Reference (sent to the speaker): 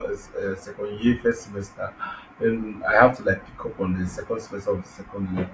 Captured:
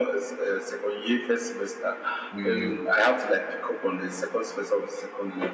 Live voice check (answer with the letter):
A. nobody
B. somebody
B